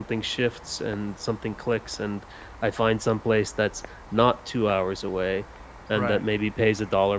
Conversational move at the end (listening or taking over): listening